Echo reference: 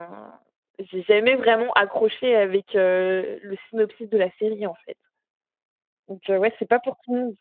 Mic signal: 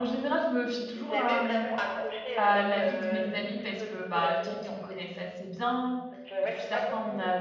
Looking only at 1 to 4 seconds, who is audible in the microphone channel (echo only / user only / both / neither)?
both